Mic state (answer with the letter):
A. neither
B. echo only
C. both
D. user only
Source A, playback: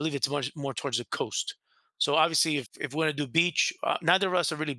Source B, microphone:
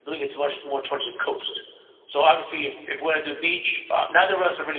B